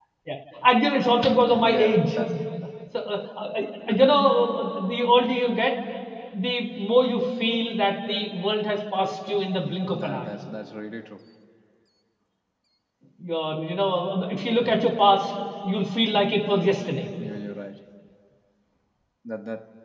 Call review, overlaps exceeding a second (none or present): none